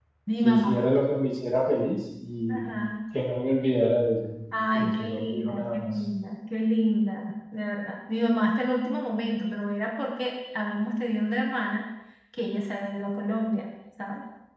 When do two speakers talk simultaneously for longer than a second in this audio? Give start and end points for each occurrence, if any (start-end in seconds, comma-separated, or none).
4.5-5.9